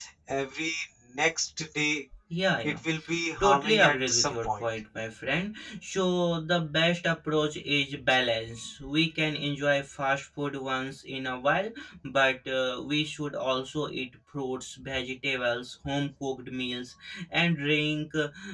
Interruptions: present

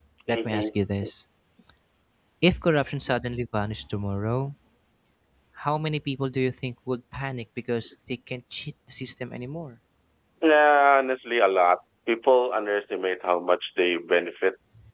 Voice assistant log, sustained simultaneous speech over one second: none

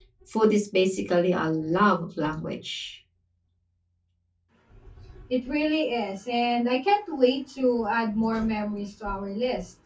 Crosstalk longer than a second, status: none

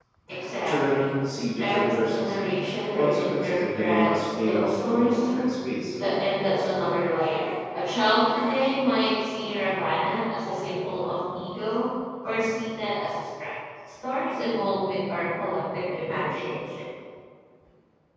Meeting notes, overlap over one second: present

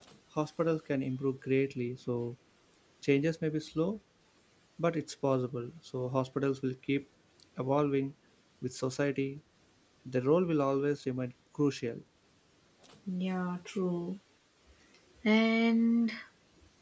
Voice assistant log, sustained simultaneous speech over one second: none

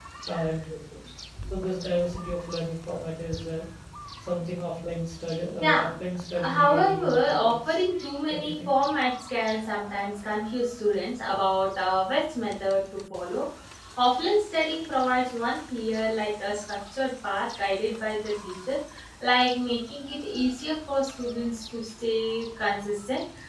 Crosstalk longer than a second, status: present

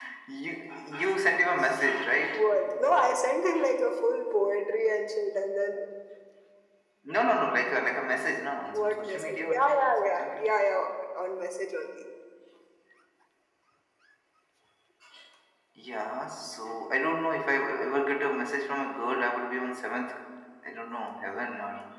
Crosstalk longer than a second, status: present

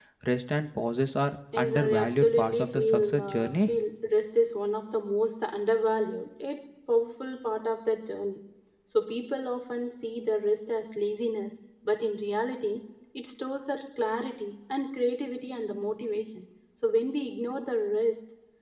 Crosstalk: present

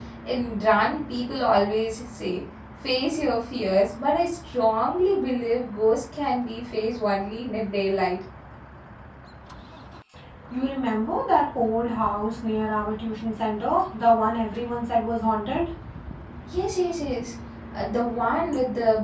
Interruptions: none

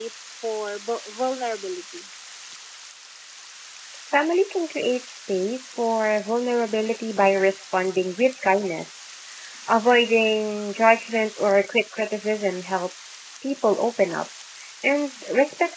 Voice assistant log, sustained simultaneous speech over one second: none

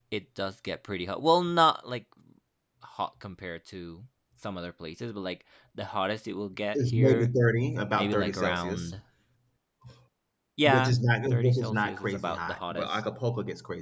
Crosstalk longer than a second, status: present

